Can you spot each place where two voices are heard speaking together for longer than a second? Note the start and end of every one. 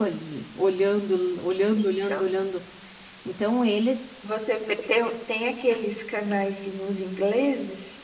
none

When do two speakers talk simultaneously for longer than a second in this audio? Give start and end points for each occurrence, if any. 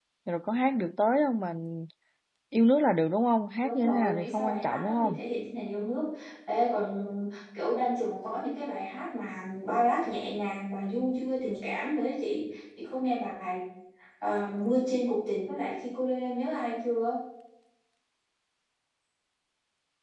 3.6-5.2

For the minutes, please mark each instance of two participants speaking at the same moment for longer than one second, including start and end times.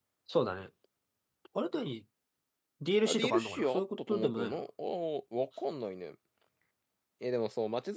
3.0-4.6

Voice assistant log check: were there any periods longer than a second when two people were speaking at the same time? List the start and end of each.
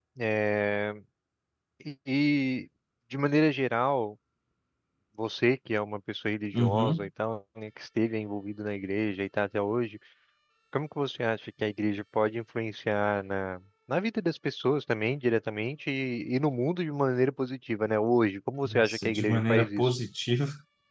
18.6-19.9

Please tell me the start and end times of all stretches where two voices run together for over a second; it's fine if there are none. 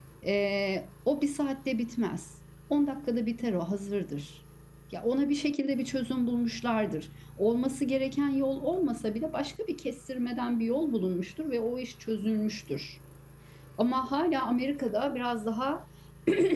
none

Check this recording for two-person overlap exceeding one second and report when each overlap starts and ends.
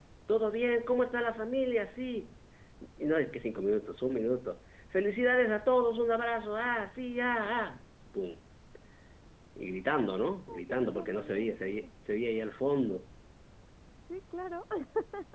10.5-11.7

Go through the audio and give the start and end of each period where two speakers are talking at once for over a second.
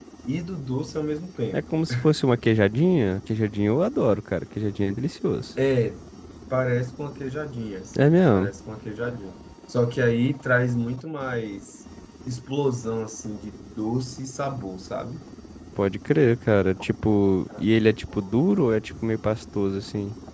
none

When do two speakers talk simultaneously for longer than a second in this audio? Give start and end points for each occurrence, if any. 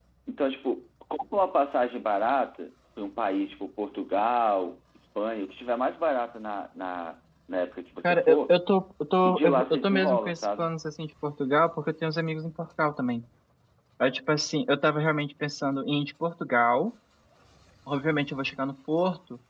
9.2-10.7

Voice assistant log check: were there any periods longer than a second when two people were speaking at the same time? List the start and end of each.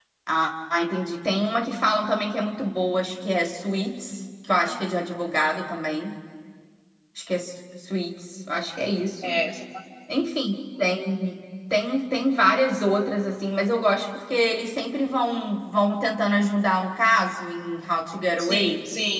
none

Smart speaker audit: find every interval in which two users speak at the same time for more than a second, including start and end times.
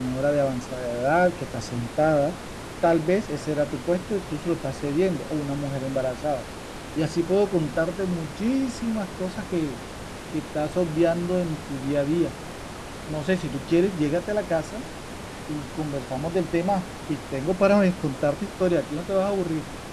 none

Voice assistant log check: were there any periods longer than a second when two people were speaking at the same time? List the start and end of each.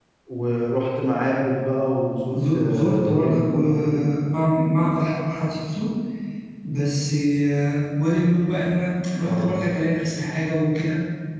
2.3-4.0

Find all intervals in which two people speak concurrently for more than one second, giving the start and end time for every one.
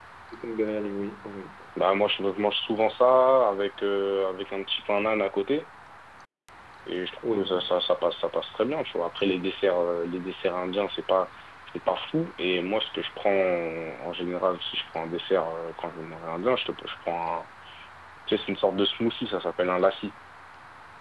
none

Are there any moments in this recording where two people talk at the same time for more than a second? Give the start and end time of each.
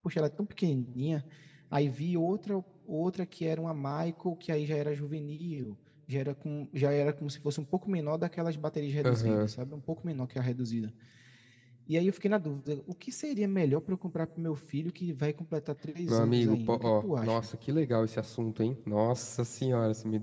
16.1-17.5

